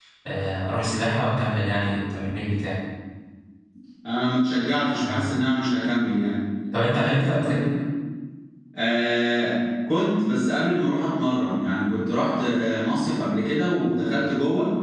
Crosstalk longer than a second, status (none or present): none